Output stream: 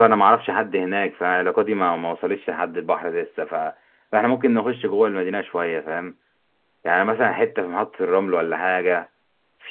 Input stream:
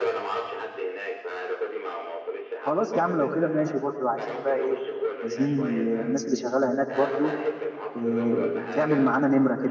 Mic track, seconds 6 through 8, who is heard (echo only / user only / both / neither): both